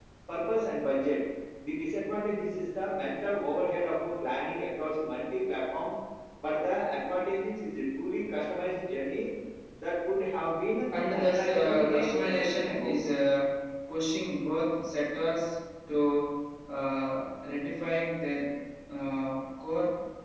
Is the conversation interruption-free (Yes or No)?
No